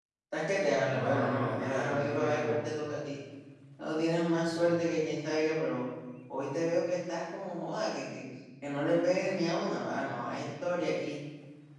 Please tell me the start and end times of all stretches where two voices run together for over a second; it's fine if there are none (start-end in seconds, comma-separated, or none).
0.9-2.7